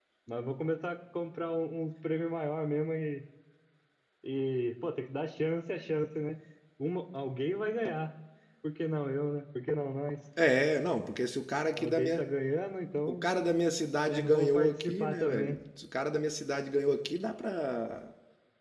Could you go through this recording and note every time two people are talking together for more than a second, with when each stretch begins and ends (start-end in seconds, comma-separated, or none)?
14.1-15.6